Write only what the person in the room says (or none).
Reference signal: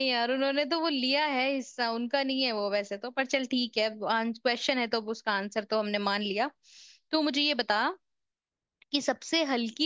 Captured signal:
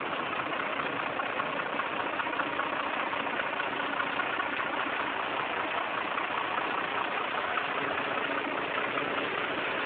none